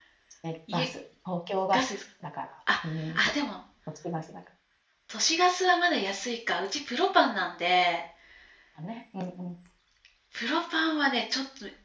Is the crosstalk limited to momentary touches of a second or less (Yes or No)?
Yes